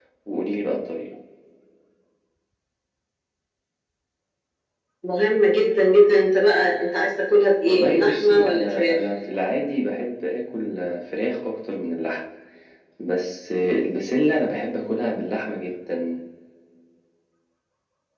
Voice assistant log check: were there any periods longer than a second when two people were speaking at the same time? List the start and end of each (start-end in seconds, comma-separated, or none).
7.7-9.0